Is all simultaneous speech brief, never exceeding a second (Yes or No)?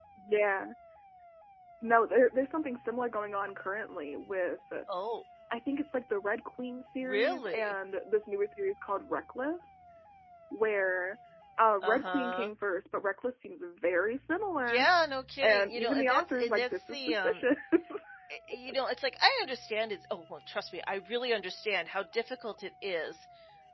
No